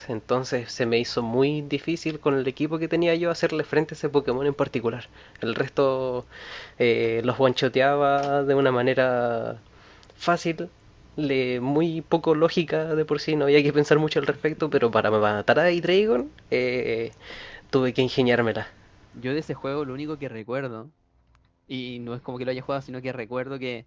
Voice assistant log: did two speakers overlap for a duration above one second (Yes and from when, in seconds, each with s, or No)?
No